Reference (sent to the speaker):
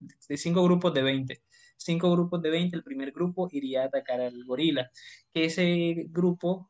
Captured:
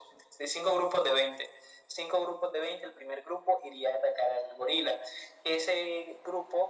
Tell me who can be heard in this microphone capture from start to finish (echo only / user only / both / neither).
echo only